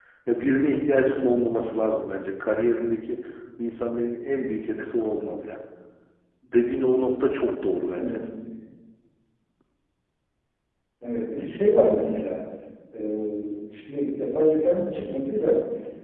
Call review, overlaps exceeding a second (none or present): none